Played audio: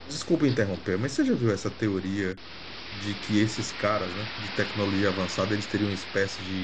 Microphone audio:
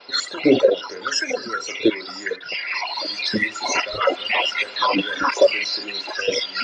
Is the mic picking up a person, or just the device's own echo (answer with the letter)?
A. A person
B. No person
B